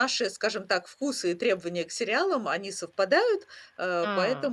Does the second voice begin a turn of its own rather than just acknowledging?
No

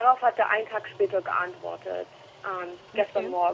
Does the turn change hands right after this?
No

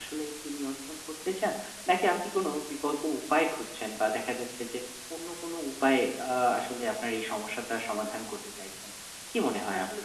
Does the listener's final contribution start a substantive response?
Yes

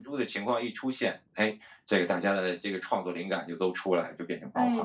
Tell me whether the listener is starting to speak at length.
Yes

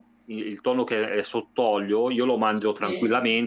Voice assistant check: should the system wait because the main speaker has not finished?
Yes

